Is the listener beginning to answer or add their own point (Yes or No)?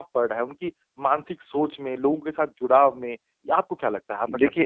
Yes